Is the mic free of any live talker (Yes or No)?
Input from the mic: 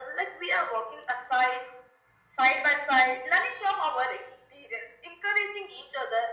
Yes